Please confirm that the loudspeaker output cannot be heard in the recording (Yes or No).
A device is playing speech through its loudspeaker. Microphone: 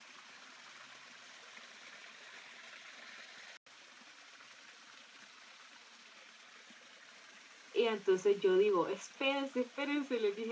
Yes